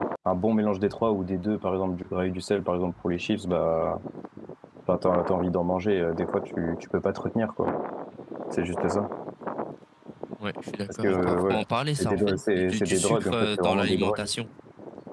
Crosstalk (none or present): present